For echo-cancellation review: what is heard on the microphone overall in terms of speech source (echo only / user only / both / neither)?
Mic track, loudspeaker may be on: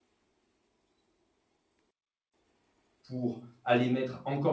user only